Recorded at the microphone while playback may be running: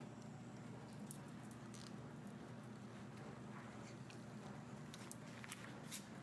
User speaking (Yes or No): No